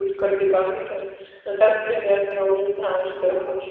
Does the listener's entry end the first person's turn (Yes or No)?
Yes